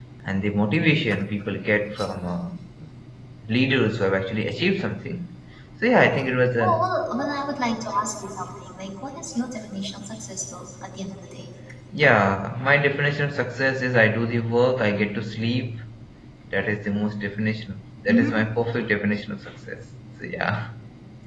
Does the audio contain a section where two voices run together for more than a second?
No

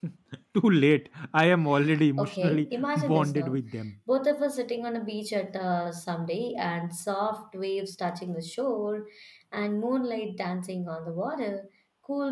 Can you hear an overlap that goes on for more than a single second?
Yes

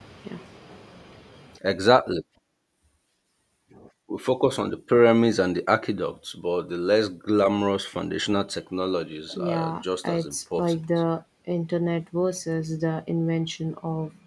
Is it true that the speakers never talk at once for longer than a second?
No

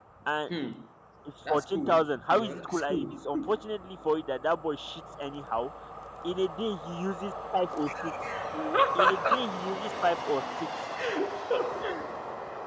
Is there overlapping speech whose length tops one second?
Yes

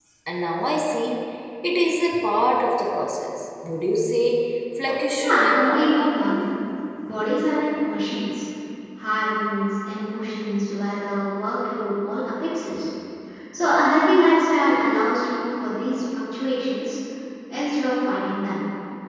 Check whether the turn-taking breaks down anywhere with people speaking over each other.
Yes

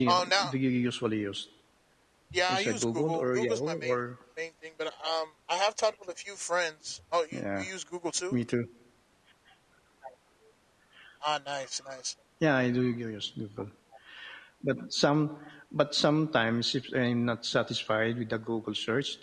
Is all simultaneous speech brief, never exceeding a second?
No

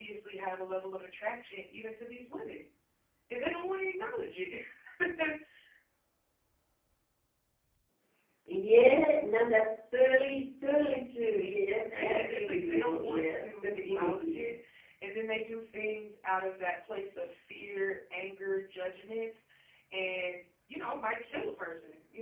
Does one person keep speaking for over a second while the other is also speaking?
Yes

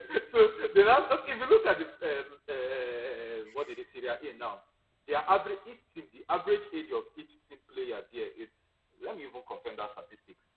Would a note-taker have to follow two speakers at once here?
No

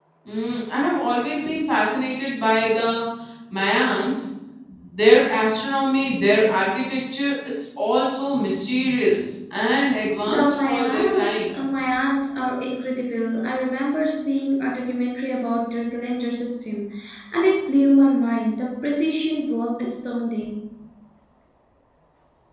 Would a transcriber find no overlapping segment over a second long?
No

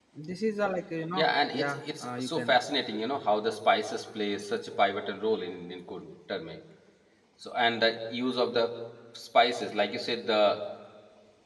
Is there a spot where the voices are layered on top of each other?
Yes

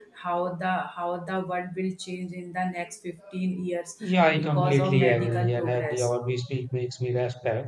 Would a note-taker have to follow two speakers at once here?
Yes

